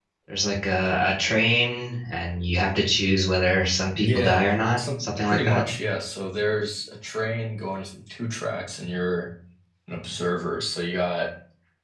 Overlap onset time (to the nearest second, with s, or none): 4 s